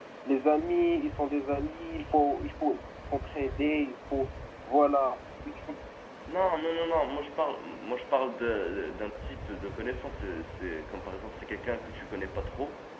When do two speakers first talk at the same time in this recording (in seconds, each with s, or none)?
none